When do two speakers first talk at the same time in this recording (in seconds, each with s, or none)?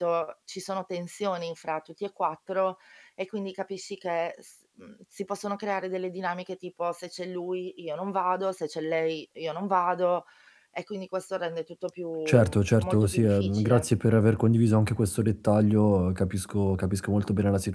12.3 s